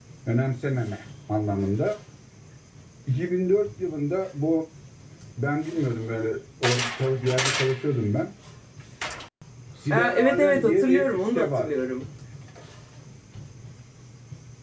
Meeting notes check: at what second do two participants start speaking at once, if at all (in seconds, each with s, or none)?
9.9 s